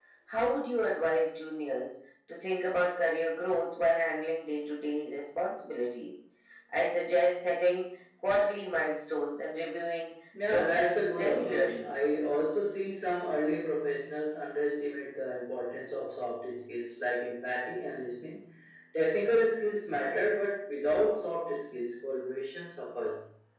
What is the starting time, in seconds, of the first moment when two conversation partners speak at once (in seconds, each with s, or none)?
10.3 s